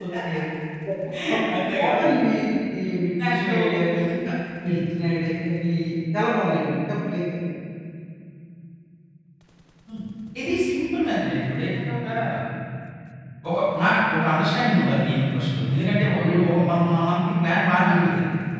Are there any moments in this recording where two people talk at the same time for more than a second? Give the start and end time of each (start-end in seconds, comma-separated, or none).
none